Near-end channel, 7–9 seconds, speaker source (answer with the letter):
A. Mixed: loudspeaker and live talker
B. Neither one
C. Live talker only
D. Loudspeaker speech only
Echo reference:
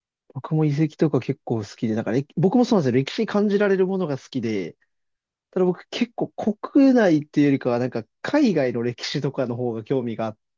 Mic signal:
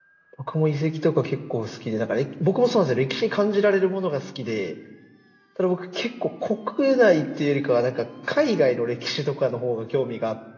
D